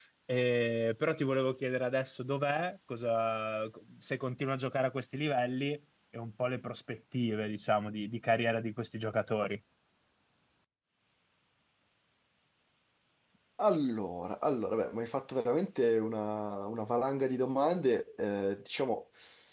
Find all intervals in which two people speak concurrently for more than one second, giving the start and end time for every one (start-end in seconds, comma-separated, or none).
none